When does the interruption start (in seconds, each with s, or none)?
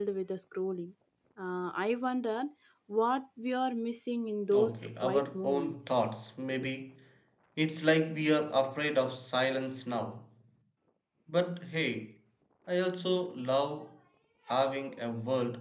4.5 s